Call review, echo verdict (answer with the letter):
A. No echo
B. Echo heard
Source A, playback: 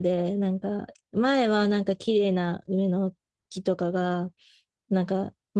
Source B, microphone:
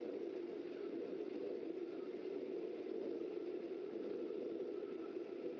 A